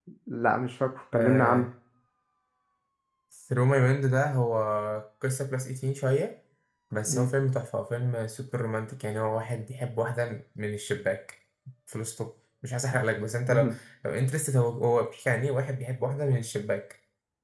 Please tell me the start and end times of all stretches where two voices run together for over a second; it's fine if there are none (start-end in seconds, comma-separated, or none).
none